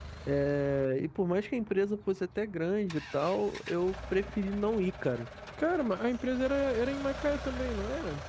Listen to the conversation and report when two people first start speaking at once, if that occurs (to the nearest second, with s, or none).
none